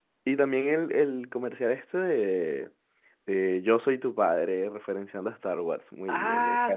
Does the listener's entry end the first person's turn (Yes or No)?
Yes